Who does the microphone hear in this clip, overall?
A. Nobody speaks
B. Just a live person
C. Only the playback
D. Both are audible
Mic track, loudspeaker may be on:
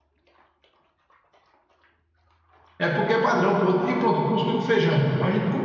B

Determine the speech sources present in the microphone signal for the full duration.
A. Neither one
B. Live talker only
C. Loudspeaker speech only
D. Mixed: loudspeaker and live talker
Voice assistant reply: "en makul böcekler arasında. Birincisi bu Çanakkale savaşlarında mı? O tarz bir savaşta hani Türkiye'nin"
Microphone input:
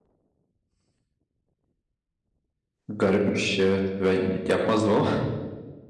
B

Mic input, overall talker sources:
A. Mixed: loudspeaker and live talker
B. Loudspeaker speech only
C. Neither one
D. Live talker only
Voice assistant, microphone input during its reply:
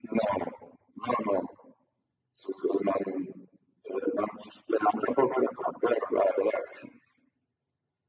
B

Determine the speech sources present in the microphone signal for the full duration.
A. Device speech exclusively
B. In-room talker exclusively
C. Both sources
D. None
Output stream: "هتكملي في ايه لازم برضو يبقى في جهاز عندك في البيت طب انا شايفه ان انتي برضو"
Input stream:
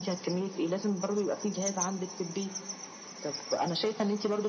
A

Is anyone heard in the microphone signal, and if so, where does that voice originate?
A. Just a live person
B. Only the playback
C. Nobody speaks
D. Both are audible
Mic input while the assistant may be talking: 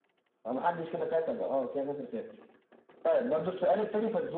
B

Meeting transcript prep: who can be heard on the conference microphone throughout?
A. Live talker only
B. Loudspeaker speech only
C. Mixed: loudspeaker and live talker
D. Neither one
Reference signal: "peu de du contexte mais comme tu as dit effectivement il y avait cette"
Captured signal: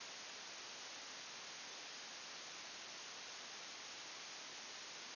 D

